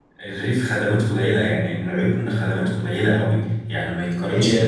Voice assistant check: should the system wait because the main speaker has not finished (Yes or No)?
Yes